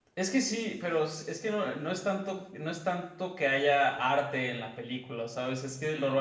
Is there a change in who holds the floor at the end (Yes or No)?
No